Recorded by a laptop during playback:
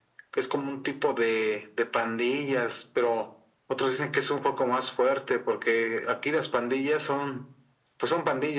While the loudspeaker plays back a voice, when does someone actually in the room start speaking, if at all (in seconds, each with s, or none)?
none